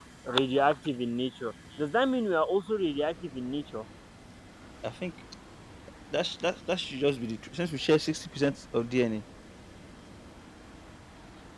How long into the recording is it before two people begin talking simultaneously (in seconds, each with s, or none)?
none